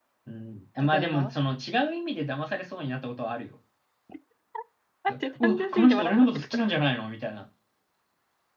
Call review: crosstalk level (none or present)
present